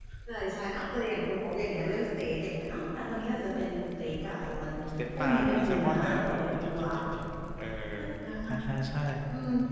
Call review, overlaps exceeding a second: present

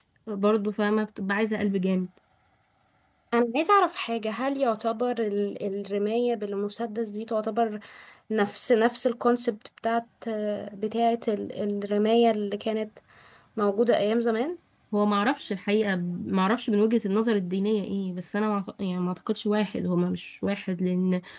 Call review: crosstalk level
none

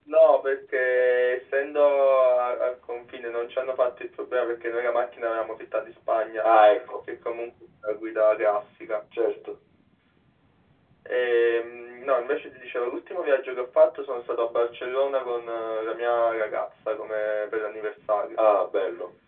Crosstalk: none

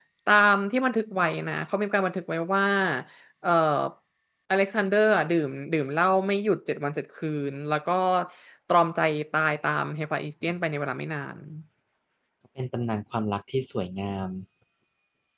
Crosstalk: none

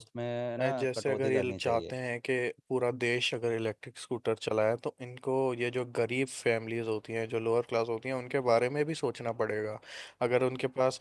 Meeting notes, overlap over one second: present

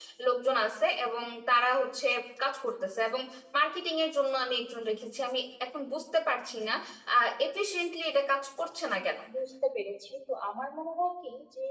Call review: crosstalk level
none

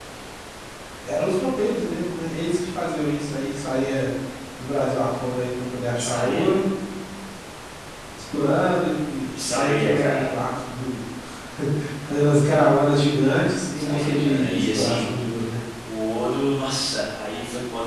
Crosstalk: present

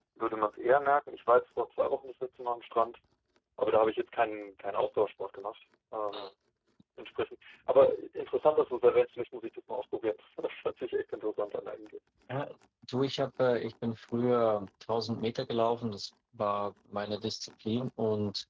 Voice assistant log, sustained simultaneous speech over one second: none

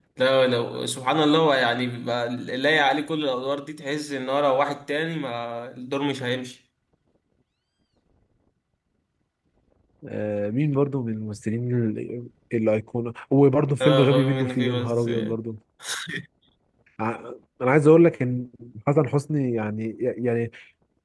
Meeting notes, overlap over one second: present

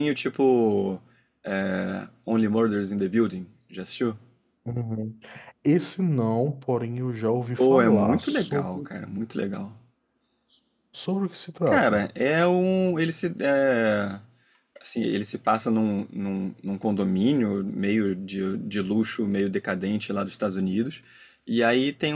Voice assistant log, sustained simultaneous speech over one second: present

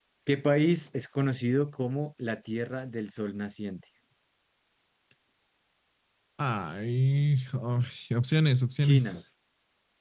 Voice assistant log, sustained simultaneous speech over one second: none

